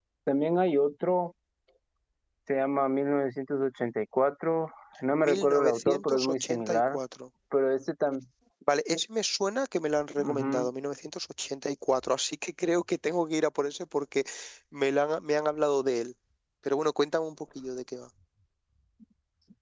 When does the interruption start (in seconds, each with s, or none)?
5.2 s